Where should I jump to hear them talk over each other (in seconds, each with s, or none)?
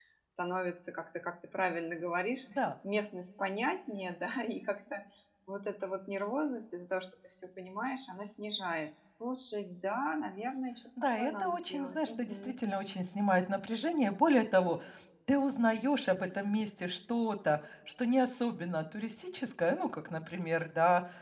11.0 s